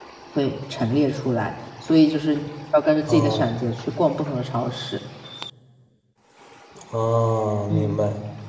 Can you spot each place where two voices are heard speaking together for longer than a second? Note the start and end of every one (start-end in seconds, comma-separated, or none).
none